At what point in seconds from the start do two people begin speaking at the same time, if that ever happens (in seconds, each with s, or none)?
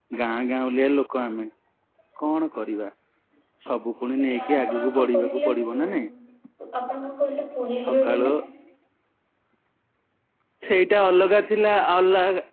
4.2 s